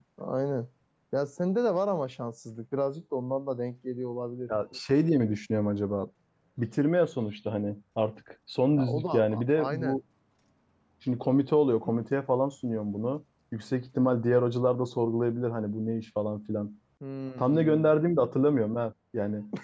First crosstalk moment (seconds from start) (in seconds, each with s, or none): 8.8 s